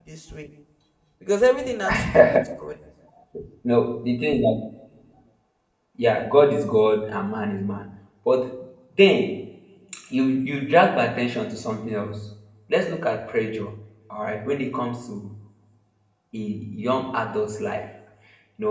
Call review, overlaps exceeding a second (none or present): none